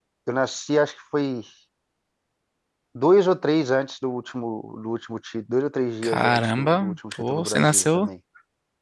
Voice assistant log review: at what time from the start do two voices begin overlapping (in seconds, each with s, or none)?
6.0 s